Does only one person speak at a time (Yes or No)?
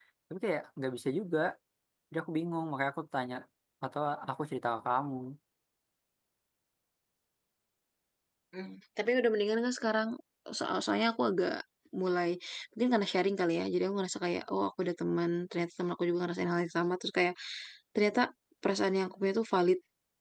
Yes